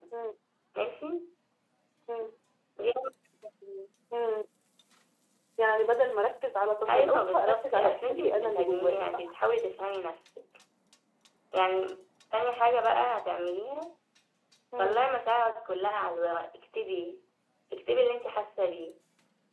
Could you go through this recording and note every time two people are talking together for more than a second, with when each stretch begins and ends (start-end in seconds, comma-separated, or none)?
6.9-9.3